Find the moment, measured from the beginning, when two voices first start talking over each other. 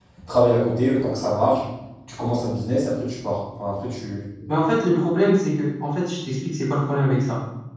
none

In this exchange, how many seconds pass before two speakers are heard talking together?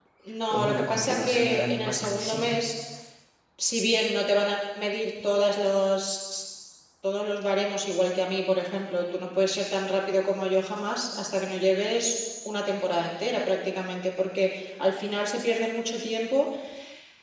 0.5 s

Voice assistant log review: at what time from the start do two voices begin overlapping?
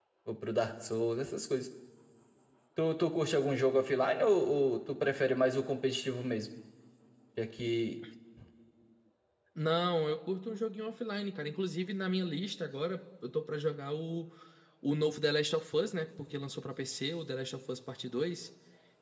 none

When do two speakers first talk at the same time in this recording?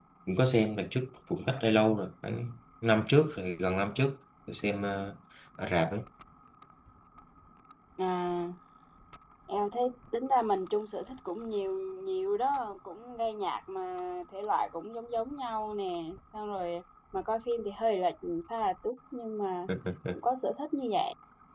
none

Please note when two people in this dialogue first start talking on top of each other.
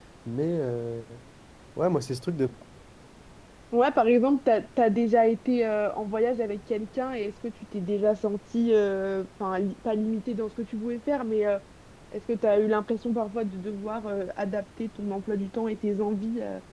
none

